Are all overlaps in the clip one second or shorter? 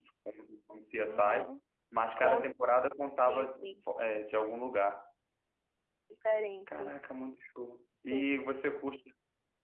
Yes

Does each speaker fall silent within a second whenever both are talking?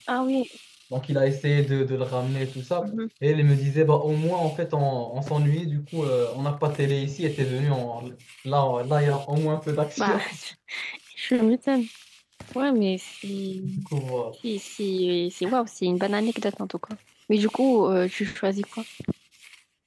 Yes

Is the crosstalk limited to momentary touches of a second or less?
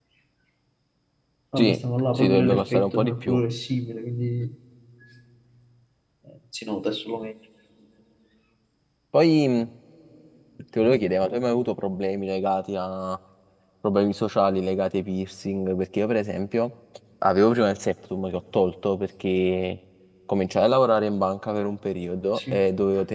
No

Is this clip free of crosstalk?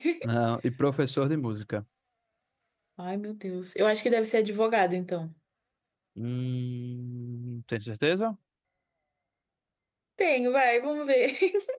Yes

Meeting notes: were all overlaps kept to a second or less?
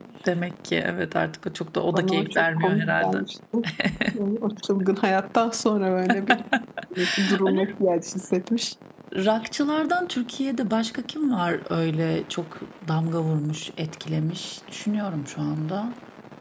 No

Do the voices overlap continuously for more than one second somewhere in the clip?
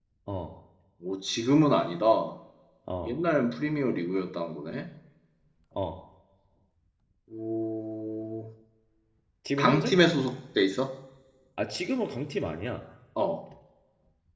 No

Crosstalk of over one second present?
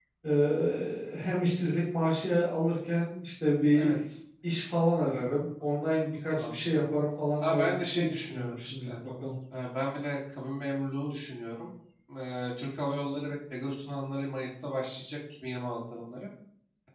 Yes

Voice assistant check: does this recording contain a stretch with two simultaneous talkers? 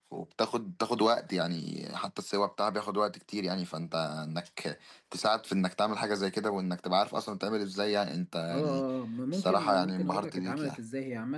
Yes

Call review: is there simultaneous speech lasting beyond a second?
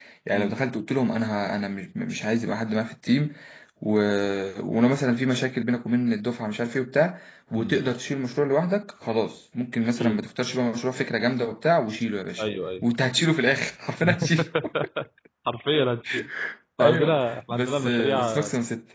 Yes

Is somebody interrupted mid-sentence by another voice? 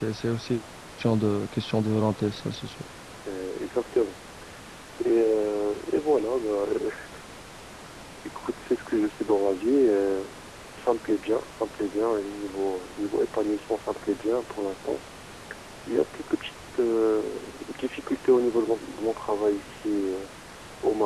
No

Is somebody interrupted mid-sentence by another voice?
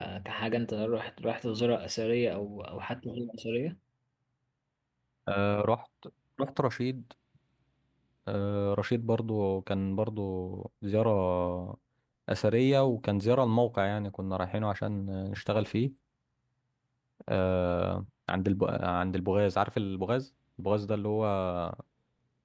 No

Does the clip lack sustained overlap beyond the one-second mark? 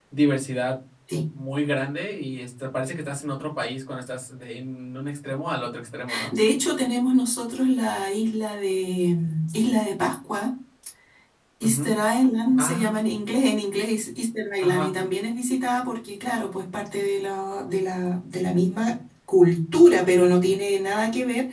Yes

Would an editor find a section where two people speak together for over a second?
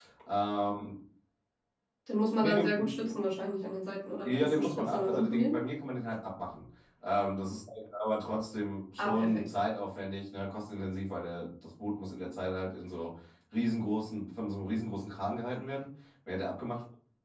Yes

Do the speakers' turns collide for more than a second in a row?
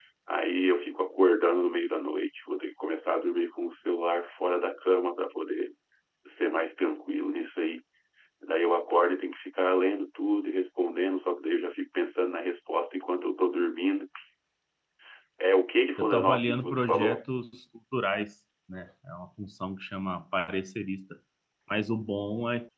Yes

